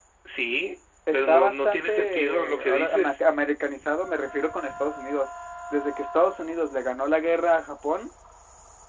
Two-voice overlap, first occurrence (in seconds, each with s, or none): 1.1 s